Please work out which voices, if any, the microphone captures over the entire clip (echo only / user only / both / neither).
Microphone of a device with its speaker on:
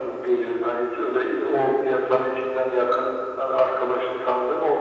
echo only